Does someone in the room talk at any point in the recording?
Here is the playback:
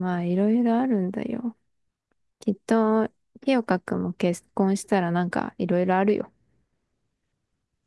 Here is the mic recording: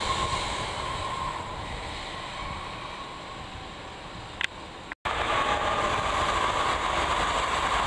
No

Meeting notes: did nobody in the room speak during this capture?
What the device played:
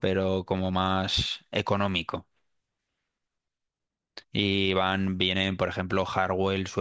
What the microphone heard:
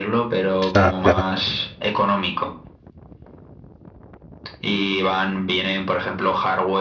No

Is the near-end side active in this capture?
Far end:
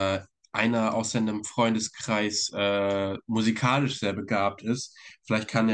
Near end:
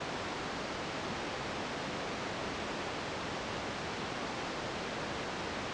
No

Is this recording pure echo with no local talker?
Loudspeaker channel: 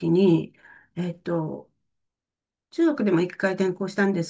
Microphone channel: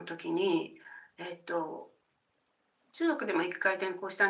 Yes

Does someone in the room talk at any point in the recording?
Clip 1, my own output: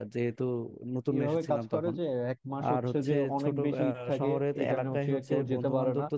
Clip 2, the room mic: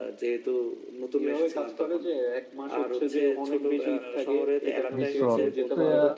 Yes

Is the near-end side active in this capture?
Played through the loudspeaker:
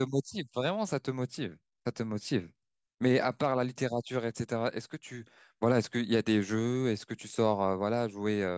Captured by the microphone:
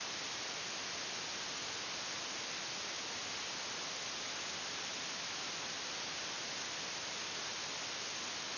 No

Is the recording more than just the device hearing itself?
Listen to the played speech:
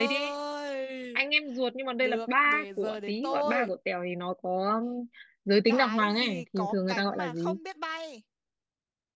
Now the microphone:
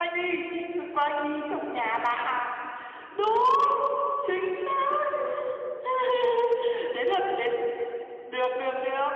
Yes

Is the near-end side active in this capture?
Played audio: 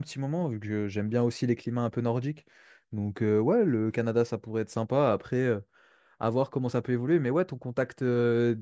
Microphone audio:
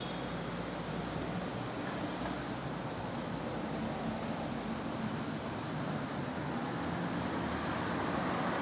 No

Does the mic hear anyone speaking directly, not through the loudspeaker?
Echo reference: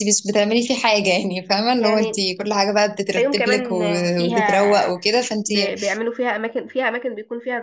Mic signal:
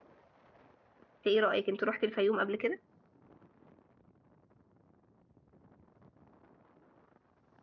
Yes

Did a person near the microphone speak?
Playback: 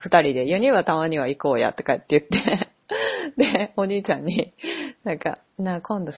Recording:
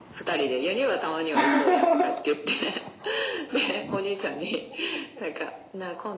Yes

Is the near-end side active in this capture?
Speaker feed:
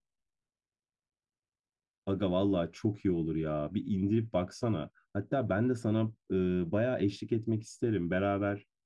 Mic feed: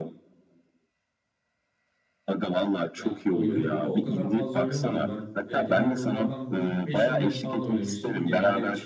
Yes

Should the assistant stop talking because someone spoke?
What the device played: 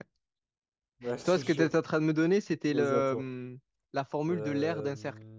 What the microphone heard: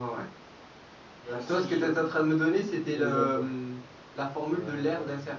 No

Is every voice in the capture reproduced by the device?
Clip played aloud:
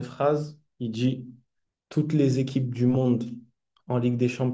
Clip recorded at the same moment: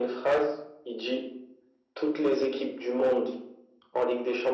Yes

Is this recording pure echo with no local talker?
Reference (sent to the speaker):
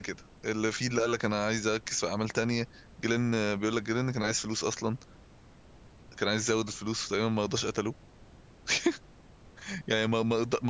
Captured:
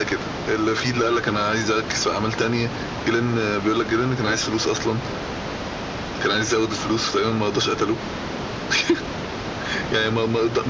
Yes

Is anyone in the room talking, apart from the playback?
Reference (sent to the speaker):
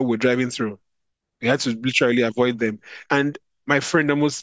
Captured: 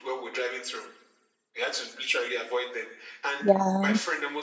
Yes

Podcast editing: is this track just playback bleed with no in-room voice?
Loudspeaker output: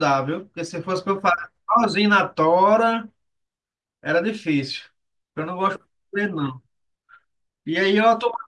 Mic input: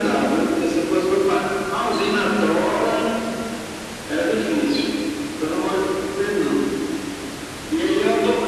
Yes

